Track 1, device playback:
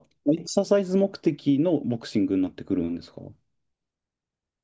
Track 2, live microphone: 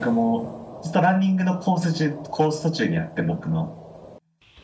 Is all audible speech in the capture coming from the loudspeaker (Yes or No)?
No